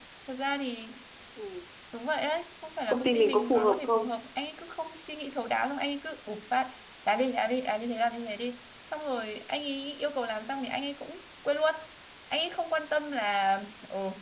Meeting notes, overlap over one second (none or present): present